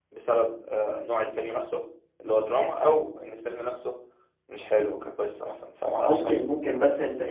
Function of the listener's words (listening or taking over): taking over